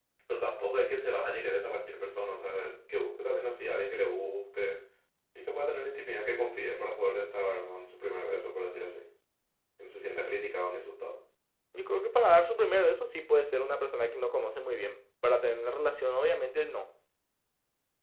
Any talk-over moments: No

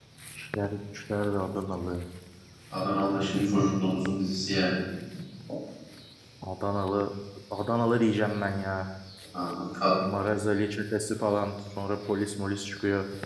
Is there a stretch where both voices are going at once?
No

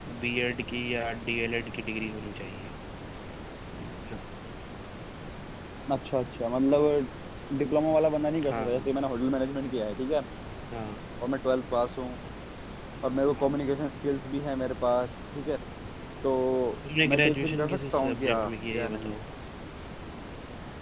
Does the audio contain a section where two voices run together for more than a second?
Yes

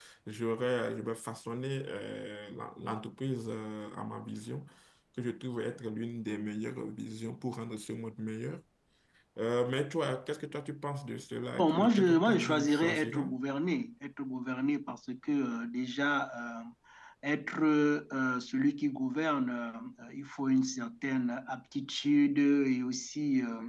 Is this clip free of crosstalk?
No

